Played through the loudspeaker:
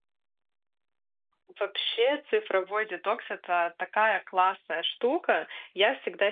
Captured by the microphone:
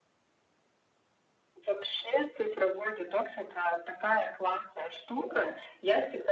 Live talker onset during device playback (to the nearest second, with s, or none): none